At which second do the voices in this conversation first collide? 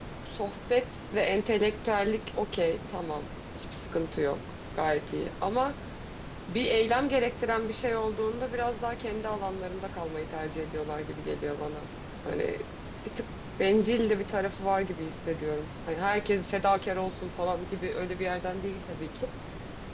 none

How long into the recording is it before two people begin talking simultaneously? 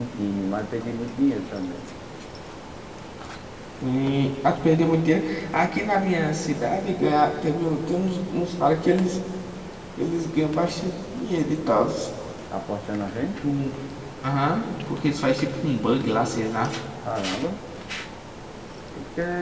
none

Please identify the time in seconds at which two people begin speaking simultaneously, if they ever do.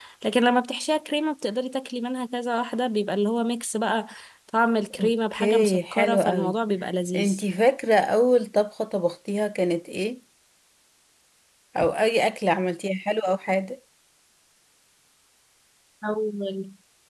5.0 s

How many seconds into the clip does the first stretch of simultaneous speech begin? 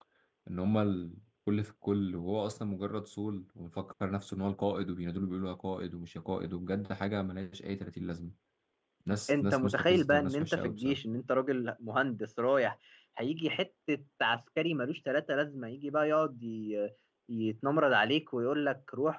9.3 s

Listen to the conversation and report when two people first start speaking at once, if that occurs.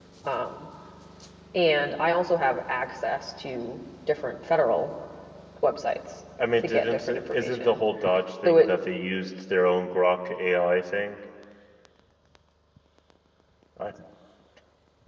6.6 s

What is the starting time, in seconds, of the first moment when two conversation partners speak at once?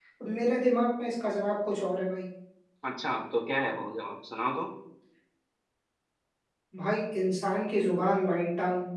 none

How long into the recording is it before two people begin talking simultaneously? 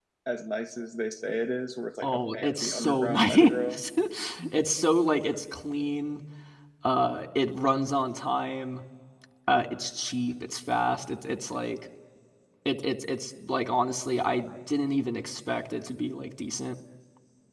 2.0 s

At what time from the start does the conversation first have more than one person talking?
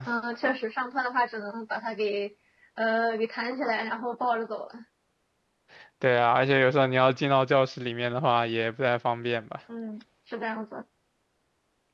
none

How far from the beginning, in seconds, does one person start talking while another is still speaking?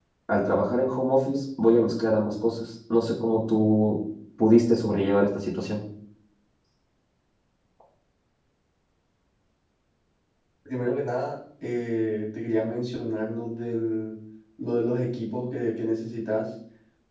none

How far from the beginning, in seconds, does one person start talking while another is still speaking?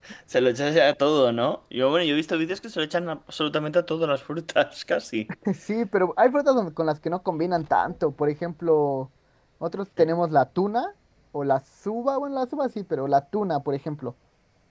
none

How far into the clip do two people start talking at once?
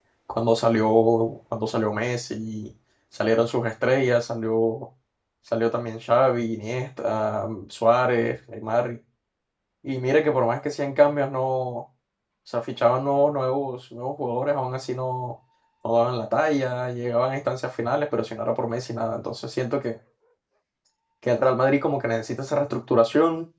none

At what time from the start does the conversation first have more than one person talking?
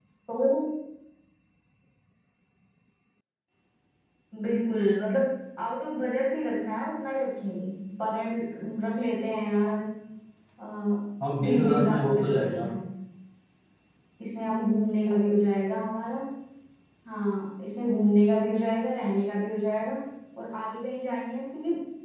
11.4 s

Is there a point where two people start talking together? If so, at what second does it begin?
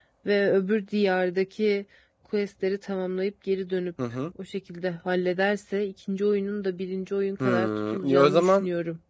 7.4 s

